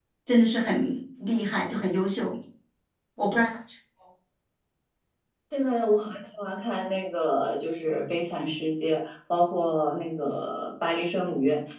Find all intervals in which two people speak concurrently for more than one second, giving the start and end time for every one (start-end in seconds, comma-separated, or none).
none